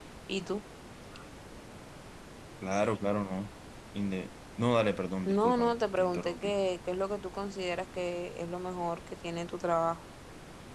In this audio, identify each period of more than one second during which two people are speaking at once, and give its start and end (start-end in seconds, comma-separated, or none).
5.2-6.5